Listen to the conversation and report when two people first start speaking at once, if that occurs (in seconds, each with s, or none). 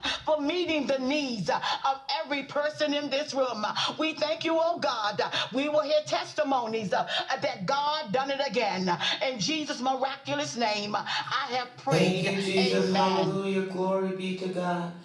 11.9 s